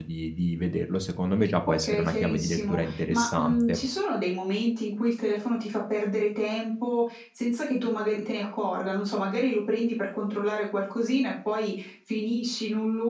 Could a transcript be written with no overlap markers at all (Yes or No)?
No